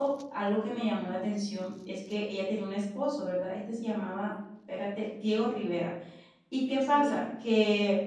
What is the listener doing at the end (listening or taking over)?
listening